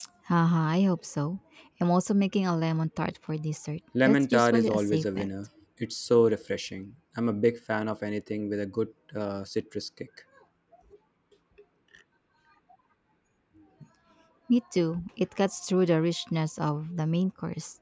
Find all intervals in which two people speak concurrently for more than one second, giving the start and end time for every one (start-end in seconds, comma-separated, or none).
4.0-5.3